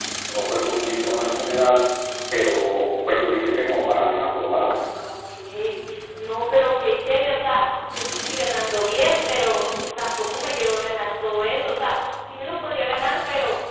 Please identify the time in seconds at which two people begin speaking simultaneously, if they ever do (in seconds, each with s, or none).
none